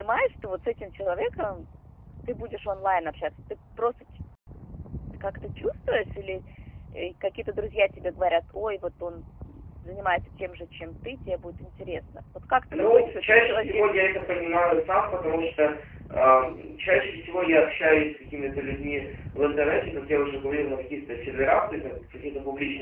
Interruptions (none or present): present